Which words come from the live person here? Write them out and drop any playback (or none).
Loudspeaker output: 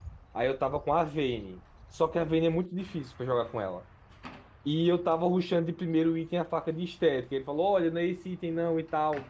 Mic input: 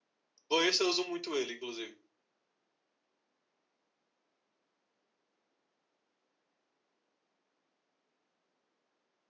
Por isso eu uso muito ele, inclusive.